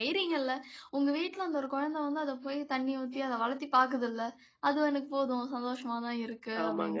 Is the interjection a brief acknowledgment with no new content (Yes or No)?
No